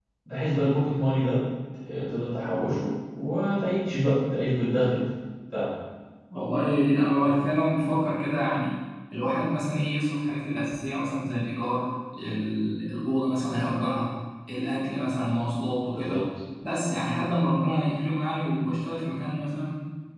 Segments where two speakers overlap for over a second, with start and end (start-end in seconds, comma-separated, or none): none